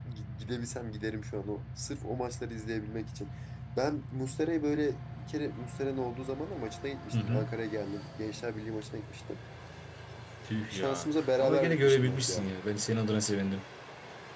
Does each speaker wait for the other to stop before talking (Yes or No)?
No